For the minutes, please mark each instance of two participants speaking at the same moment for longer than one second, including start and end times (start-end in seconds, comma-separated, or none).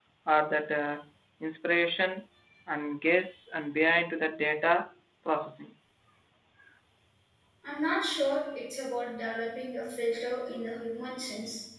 none